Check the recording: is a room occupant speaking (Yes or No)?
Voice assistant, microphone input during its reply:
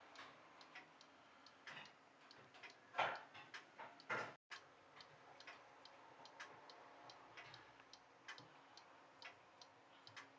No